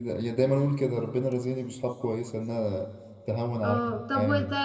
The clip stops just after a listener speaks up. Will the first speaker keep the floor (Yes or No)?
No